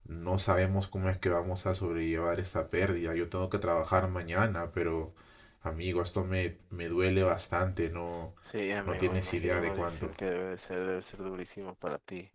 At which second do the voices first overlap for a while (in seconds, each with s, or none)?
8.8 s